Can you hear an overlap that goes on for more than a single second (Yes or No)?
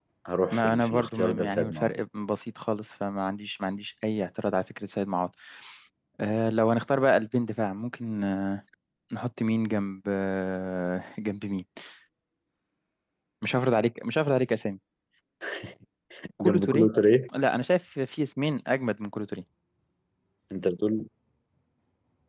Yes